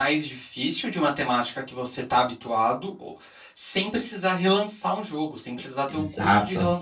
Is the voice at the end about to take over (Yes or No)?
No